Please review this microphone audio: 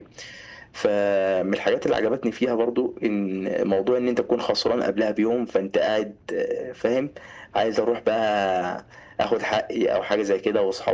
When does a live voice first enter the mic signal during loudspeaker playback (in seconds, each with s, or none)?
none